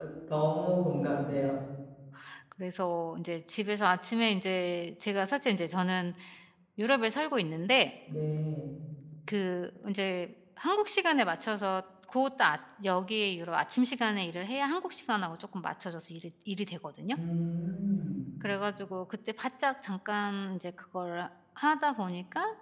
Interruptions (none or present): none